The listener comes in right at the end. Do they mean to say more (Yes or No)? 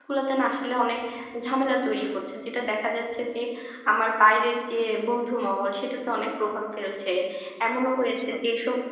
No